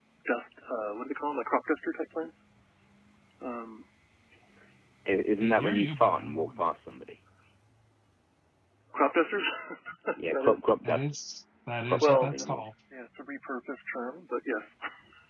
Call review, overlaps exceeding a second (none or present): present